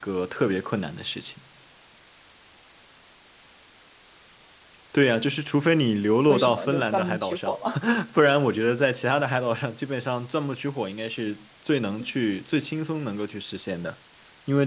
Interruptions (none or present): present